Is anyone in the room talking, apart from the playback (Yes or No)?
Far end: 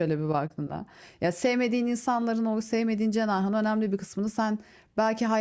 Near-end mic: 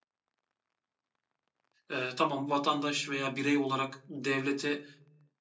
Yes